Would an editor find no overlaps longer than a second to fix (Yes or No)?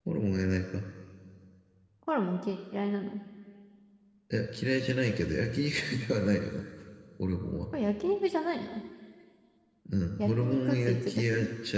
No